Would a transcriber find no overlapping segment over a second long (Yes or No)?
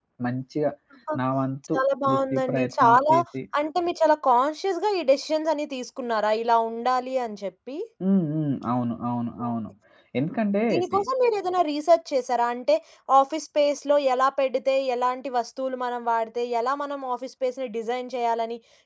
No